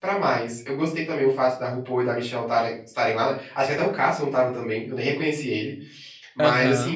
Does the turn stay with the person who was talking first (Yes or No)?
Yes